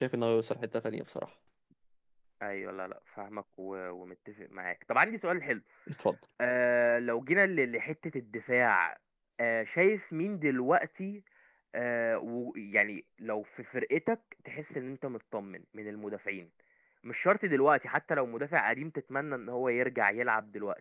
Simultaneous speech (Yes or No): No